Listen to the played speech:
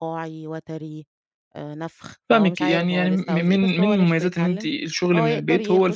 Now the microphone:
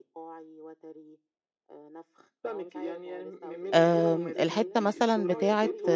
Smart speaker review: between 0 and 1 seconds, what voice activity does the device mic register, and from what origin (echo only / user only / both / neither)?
echo only